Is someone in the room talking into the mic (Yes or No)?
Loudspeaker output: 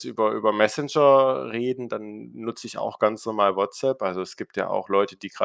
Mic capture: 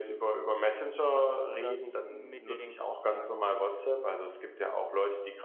Yes